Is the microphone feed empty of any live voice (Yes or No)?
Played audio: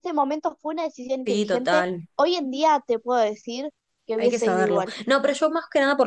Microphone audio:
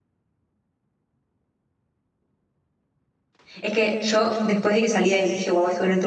No